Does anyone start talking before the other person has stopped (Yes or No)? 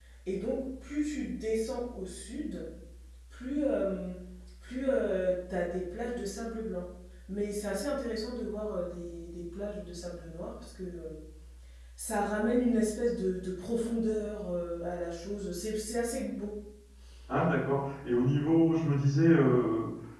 No